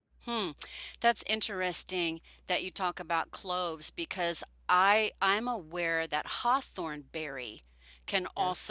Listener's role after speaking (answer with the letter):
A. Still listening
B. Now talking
A